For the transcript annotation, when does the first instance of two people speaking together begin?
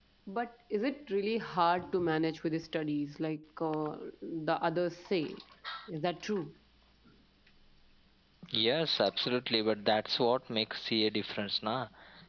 none

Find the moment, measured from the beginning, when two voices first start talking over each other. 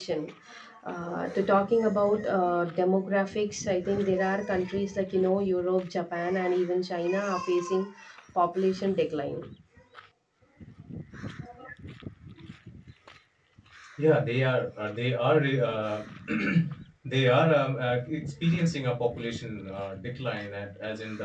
none

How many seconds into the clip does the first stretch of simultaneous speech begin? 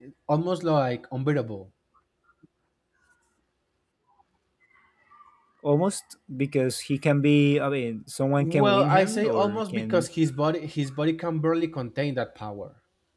8.4 s

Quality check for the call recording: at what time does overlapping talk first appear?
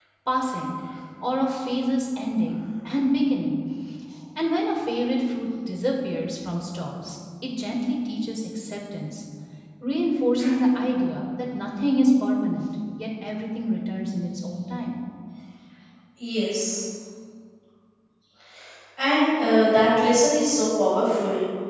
none

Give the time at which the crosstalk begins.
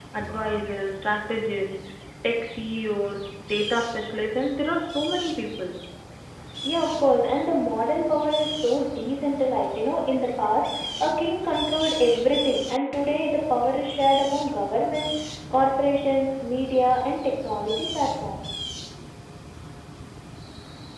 none

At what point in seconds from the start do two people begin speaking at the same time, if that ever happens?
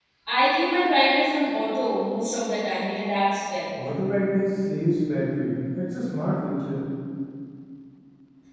none

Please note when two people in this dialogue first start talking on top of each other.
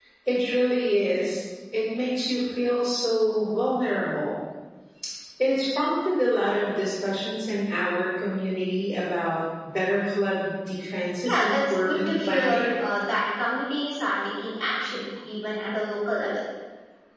11.2 s

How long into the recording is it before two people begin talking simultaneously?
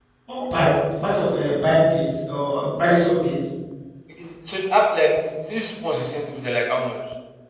none

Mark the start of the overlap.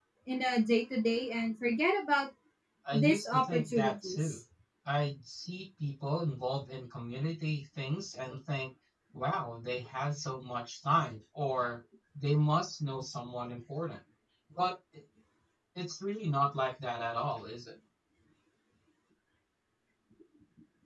2.9 s

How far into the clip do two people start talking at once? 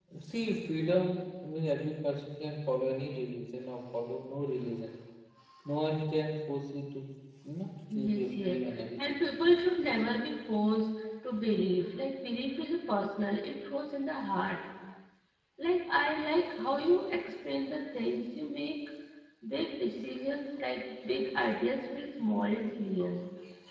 7.9 s

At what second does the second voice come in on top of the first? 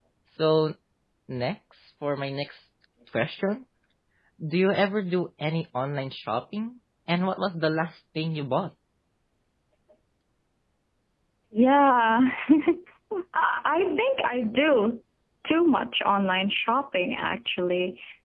none

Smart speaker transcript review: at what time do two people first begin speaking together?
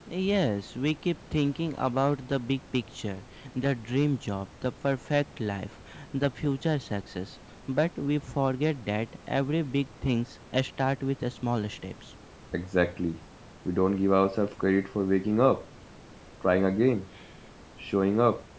none

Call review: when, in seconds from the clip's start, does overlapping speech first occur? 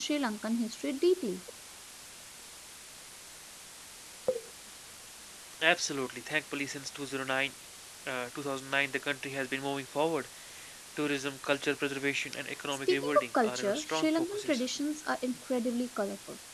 12.9 s

